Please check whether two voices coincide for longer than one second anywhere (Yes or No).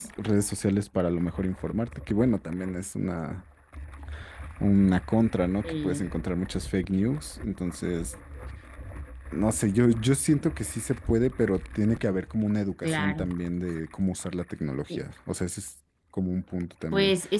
No